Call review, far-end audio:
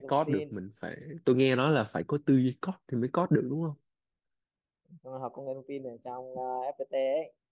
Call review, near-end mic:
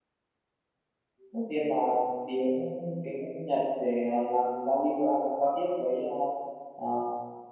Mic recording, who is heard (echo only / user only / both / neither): user only